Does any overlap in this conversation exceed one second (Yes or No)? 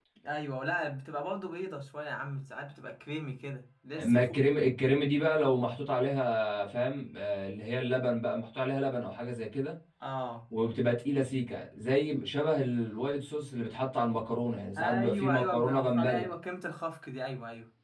Yes